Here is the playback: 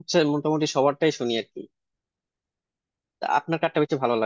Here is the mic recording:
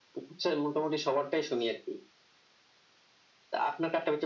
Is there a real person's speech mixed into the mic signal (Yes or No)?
No